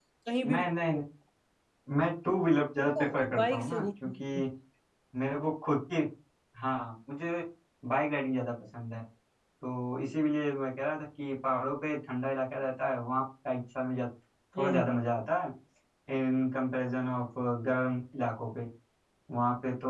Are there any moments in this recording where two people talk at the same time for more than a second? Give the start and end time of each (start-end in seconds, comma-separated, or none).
3.0-4.4